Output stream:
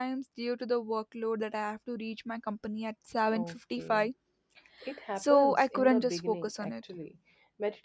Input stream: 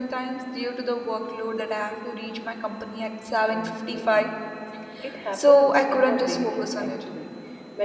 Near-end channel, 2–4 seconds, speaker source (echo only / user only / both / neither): echo only